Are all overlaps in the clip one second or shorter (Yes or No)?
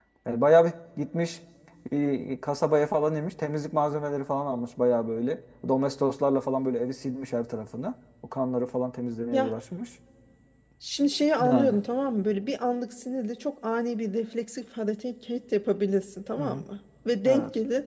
Yes